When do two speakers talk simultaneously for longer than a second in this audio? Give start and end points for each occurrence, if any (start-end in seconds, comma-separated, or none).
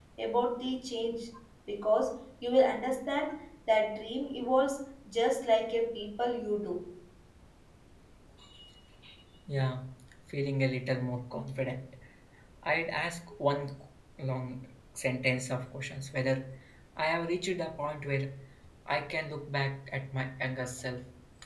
none